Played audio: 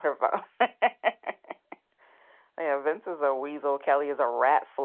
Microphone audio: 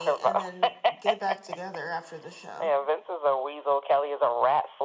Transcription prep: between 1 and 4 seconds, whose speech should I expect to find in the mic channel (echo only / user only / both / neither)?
both